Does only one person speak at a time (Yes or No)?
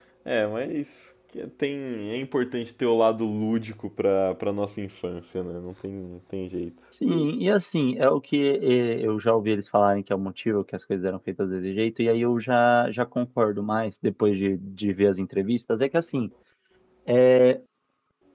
Yes